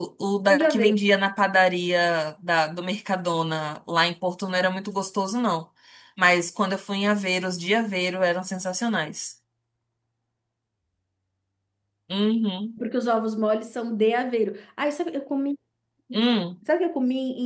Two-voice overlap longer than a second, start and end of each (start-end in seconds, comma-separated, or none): none